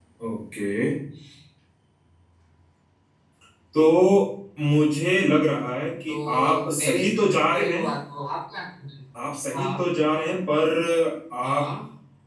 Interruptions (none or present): present